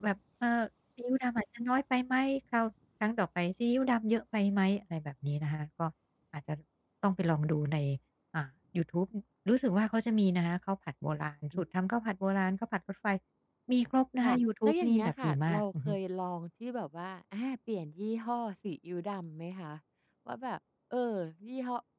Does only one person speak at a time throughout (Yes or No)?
No